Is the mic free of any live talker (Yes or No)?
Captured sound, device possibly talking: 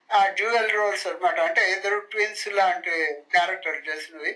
Yes